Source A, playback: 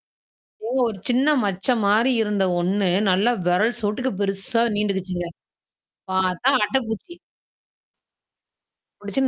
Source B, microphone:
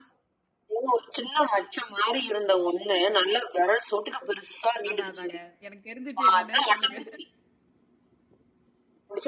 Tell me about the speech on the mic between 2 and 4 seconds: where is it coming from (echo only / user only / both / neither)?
echo only